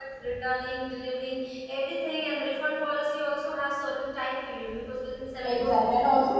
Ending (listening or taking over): taking over